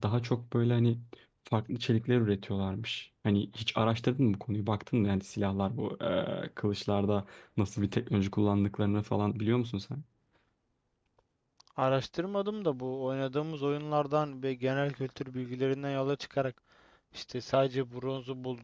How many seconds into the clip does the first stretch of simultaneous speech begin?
none

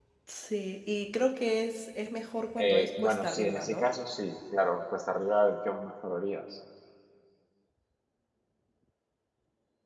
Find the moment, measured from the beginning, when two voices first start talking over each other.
3 s

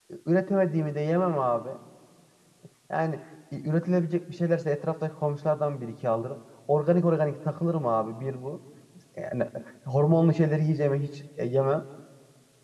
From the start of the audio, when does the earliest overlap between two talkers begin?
none

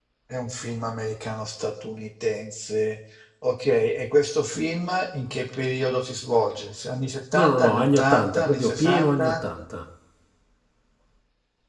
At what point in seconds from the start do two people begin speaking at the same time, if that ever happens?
7 s

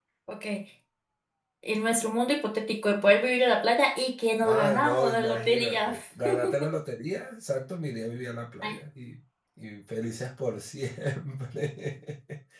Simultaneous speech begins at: 4 s

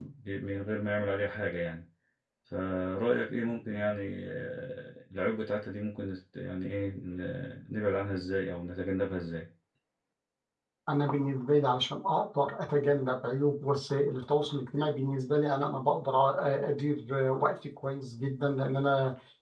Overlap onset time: none

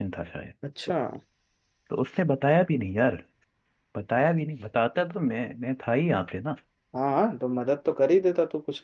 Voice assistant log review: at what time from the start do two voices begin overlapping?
none

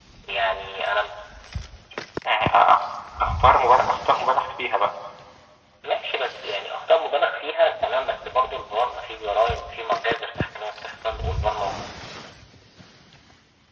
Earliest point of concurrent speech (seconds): none

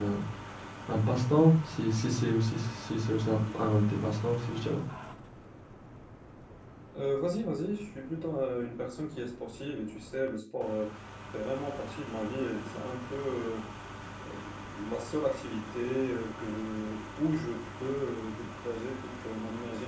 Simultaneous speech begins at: none

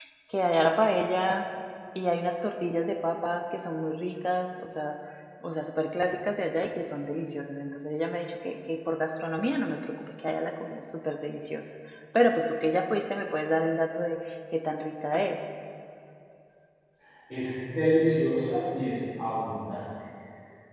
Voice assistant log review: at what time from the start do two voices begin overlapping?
none

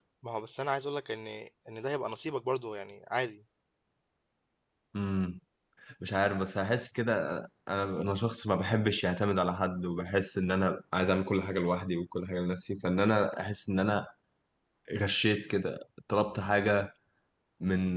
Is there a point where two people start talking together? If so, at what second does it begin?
none

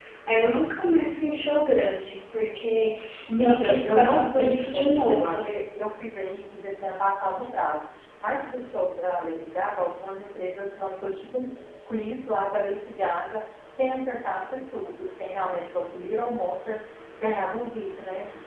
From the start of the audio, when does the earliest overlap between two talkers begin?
3 s

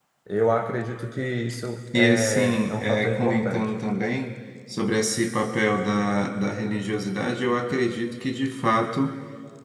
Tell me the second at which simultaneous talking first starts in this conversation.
2 s

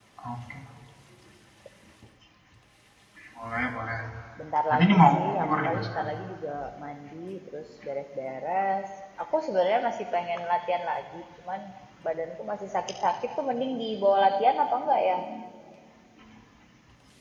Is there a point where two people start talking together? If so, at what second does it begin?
5 s

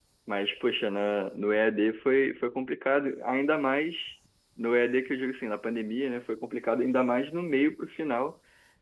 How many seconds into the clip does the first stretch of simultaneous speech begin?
none

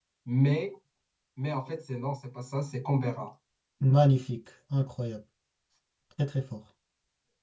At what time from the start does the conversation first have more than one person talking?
none

